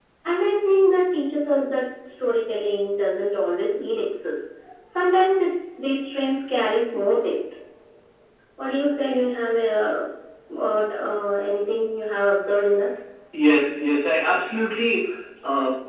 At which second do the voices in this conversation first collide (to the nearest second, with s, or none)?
none